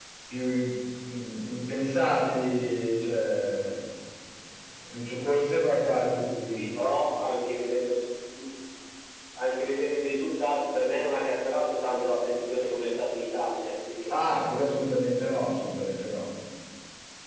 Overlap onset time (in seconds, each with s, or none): none